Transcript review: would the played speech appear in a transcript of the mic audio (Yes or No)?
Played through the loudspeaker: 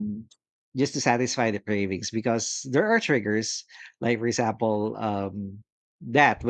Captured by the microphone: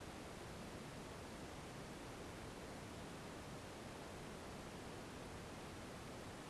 No